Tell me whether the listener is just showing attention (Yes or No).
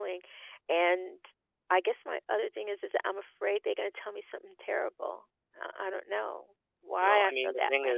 No